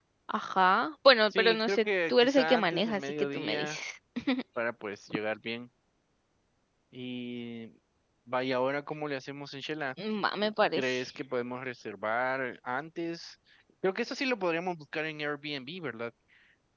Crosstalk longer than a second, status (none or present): present